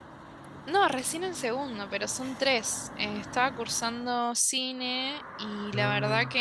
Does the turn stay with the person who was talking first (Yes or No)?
Yes